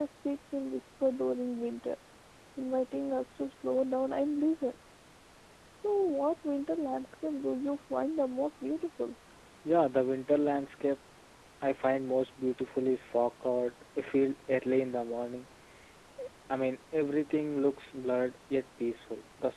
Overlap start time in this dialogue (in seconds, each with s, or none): none